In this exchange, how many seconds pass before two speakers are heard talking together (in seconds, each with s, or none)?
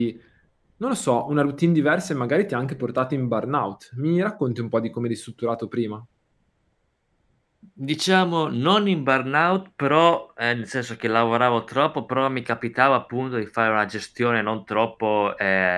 none